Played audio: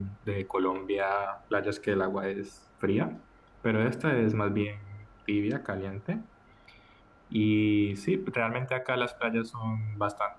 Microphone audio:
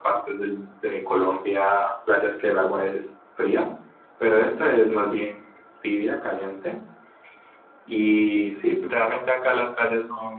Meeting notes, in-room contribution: none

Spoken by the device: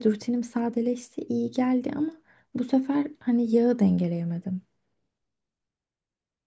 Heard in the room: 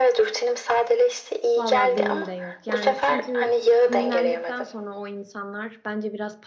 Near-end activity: present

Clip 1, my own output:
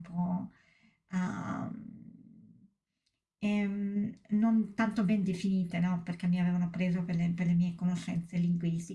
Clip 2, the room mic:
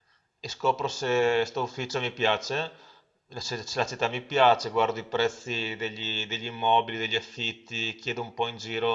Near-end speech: present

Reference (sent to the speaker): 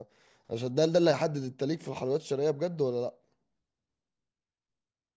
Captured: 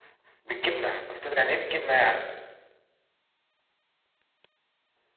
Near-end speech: present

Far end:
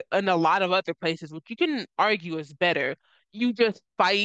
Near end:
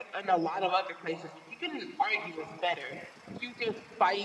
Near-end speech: none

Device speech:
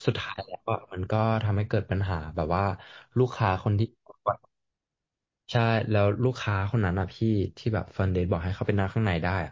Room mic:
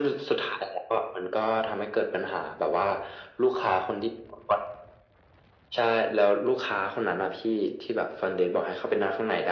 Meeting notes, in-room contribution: none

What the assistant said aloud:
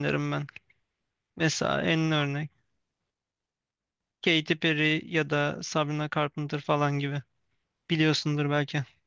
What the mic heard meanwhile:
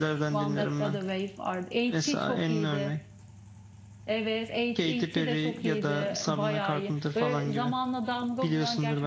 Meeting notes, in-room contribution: present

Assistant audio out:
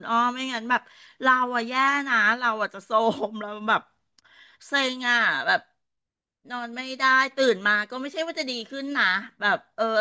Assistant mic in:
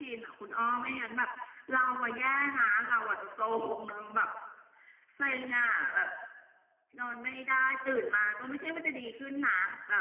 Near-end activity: none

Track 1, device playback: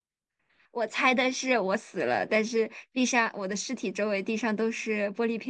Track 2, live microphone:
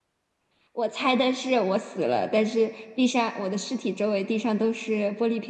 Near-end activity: none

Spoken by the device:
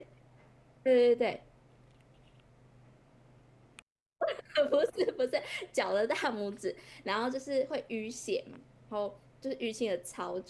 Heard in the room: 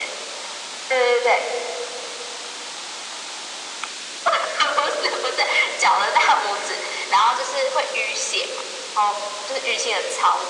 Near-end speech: none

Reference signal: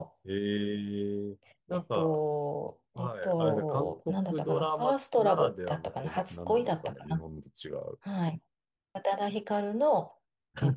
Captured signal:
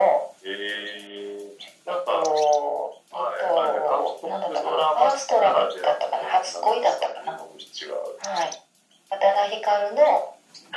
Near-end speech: none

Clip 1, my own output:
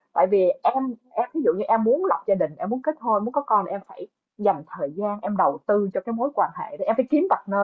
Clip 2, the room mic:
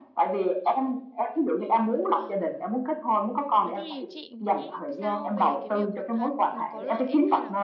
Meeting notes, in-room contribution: present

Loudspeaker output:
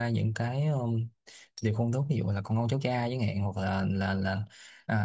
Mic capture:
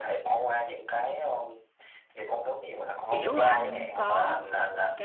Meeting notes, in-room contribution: present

